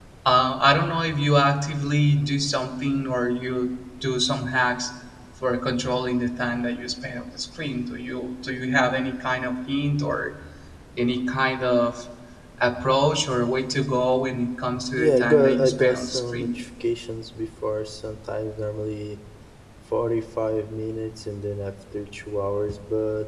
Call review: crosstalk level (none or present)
present